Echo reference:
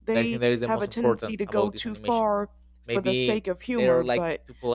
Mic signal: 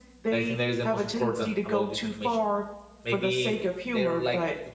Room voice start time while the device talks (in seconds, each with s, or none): none